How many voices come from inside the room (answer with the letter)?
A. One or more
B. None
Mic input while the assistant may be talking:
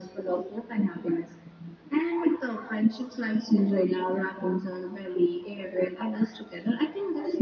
B